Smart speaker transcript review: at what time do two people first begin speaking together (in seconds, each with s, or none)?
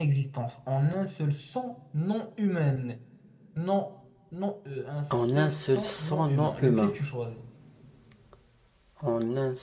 5.1 s